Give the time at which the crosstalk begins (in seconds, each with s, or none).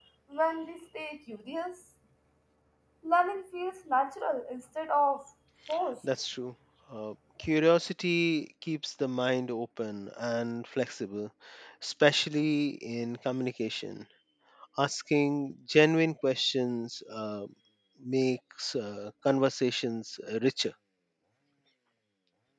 none